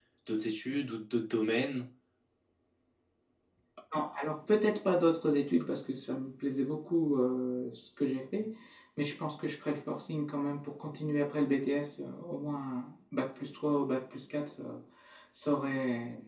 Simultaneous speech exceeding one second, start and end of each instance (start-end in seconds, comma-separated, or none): none